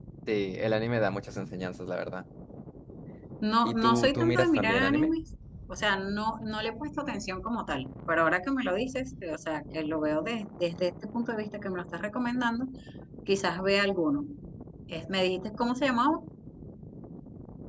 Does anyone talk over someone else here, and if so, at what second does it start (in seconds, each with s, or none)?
3.6 s